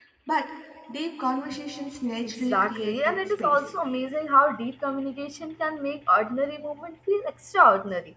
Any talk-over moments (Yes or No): Yes